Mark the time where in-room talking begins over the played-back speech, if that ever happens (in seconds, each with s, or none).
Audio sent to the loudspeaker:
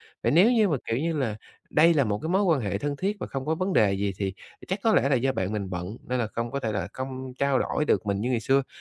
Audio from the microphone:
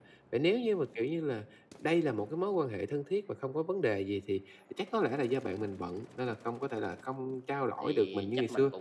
7.8 s